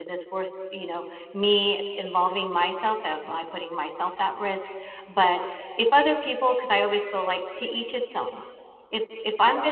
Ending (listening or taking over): taking over